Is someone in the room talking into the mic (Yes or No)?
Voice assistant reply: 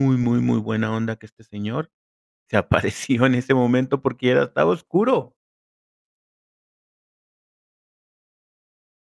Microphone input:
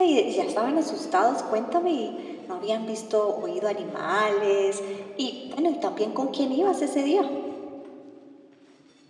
Yes